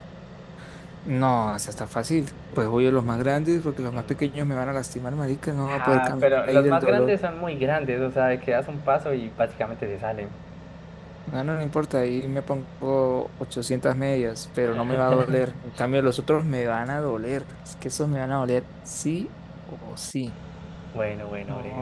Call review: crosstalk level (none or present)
present